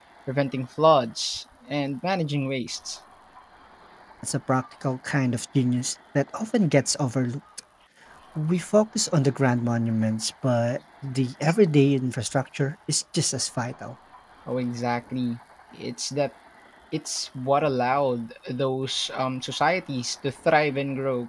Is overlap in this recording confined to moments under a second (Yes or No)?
Yes